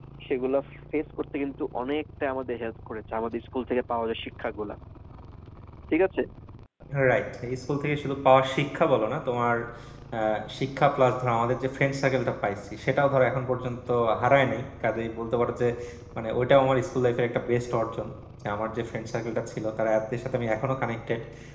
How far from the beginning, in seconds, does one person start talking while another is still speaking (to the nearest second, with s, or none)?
none